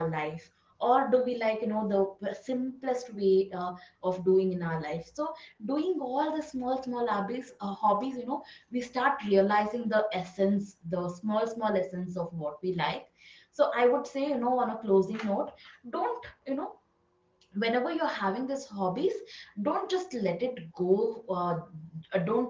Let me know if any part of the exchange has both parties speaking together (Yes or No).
No